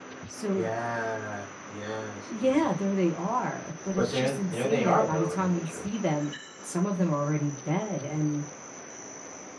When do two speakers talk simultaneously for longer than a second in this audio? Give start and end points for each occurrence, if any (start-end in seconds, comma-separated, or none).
4.0-5.8